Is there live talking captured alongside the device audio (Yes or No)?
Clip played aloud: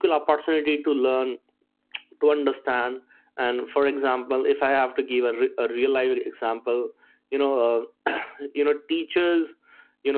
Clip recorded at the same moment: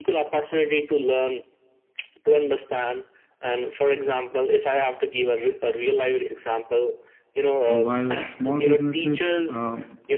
Yes